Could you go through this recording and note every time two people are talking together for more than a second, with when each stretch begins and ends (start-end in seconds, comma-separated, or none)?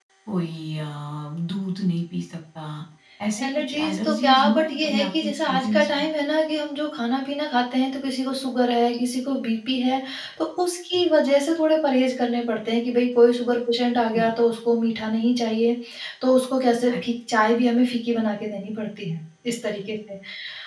3.4-6.0